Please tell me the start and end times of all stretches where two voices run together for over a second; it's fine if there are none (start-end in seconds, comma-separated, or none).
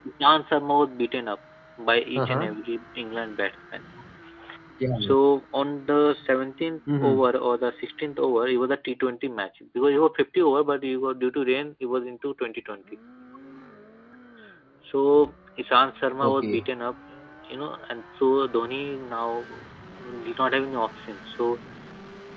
none